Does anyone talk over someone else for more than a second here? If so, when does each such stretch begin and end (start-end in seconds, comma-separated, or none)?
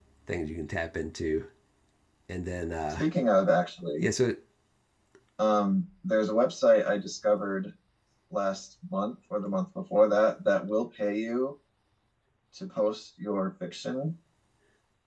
none